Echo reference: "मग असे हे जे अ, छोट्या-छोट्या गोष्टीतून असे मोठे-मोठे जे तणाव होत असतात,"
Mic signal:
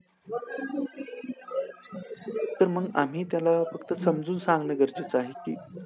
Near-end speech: present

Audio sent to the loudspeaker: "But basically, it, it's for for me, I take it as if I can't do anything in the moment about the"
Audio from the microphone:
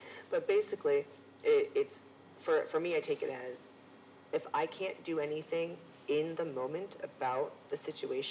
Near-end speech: none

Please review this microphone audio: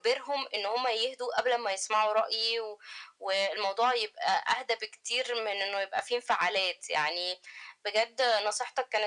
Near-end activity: none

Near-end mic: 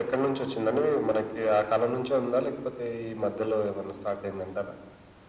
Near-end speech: none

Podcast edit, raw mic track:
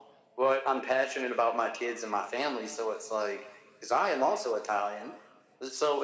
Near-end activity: none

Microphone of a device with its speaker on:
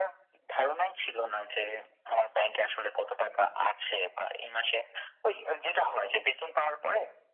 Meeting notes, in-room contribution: none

